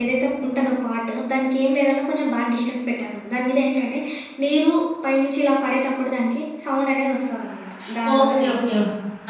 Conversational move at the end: taking over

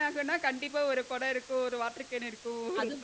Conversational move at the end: listening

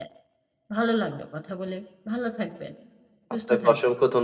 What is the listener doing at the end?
taking over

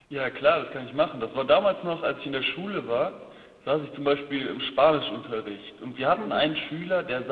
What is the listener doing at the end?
listening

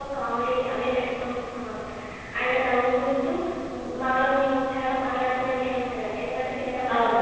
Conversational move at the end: listening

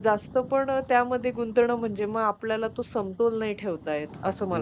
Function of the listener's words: taking over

